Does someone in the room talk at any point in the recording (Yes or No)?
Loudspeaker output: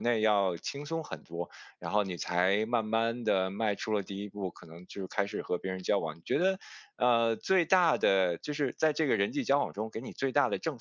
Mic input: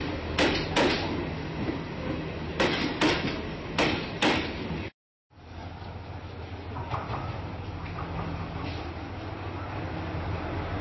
No